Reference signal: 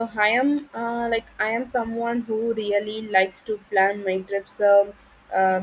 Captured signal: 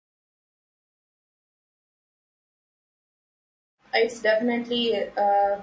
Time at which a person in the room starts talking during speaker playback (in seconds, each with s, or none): 3.9 s